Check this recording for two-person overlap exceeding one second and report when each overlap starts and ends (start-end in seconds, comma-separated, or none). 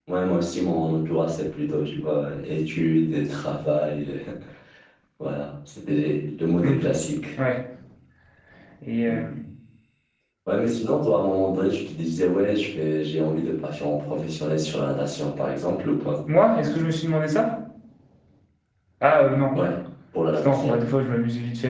none